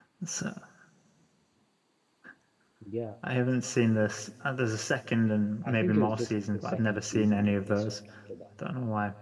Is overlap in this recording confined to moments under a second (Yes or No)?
No